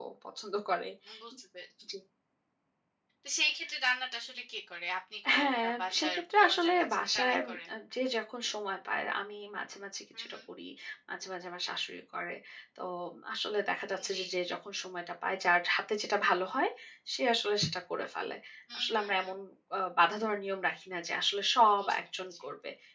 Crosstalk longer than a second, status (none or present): present